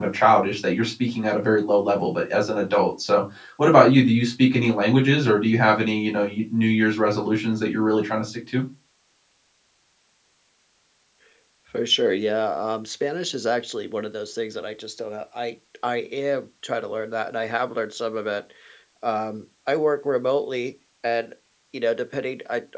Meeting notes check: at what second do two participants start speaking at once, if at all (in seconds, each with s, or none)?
none